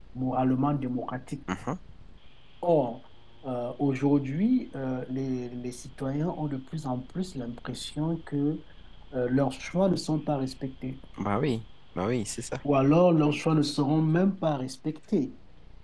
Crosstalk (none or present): none